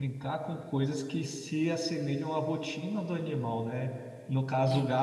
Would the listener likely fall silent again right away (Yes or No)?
Yes